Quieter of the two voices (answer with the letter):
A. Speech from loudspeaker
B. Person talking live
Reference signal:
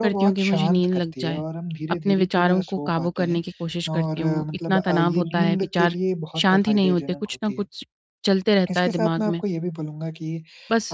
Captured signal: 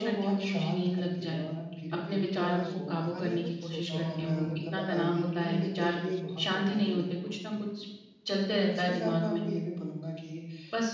B